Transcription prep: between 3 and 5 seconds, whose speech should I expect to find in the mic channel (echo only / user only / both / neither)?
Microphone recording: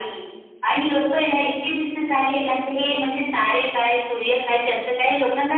echo only